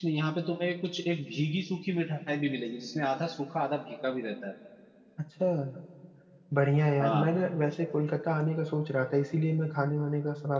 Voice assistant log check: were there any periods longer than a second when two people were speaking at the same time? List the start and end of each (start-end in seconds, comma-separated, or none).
none